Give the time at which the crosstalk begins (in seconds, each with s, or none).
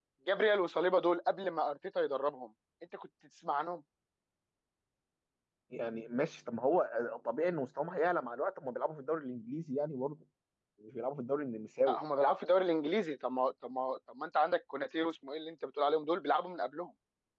none